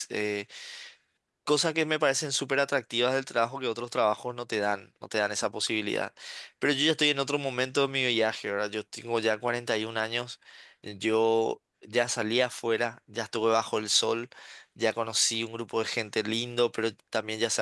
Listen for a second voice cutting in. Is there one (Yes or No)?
No